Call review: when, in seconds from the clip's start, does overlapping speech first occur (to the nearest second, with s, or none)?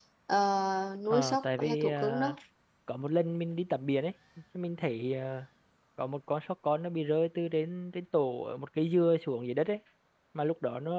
1 s